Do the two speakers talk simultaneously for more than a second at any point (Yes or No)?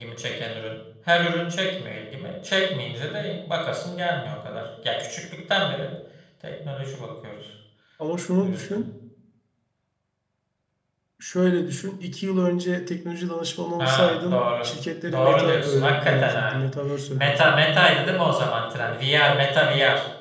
Yes